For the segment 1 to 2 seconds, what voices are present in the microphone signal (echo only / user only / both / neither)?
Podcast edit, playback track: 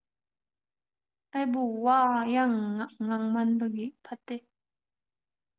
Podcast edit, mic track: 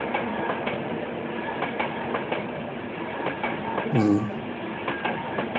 neither